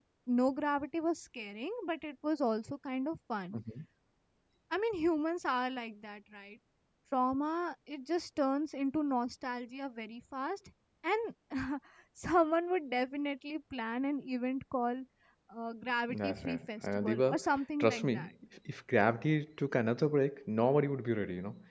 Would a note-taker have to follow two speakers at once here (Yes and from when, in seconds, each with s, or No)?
Yes, from 16.1 s